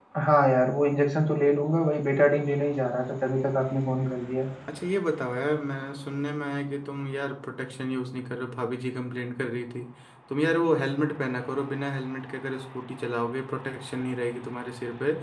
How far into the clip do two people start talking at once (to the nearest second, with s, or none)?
none